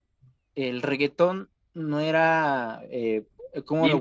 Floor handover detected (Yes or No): No